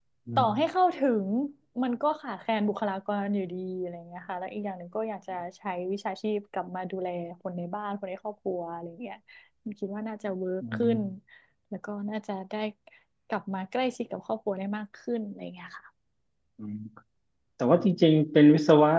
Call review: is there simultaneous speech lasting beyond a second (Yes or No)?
No